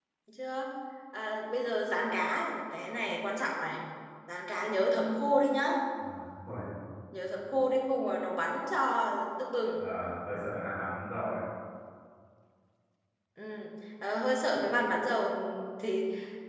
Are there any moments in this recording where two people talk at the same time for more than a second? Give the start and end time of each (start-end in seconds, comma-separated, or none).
none